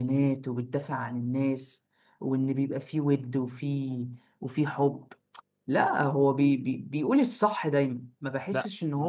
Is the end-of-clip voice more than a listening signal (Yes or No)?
Yes